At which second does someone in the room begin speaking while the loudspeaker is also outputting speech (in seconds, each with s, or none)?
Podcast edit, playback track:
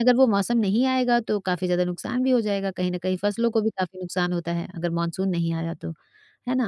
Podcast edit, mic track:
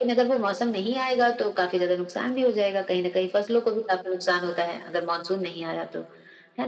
none